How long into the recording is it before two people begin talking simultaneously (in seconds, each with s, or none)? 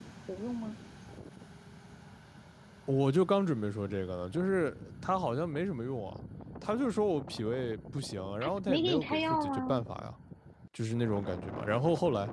8.4 s